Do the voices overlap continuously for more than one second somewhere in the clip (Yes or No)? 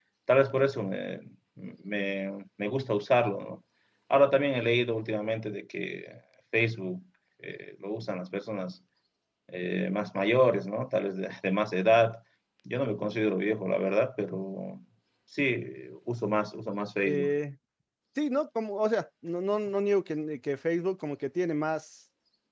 No